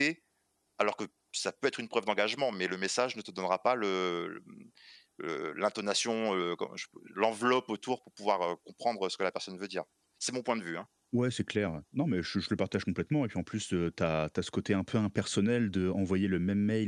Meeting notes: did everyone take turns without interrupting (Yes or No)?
Yes